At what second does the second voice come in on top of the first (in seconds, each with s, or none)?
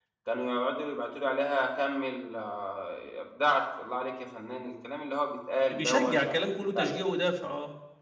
5.7 s